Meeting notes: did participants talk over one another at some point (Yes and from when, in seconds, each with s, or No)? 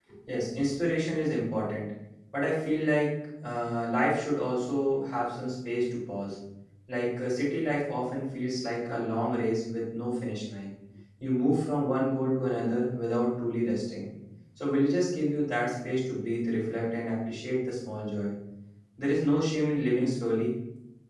No